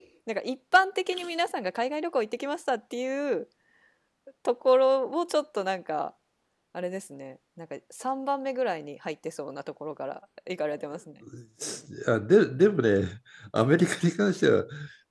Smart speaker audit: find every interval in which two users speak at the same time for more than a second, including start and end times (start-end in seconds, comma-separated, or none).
none